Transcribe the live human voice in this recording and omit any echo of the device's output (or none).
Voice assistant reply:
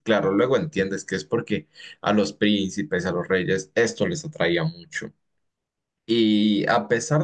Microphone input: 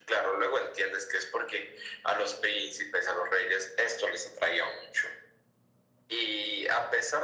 none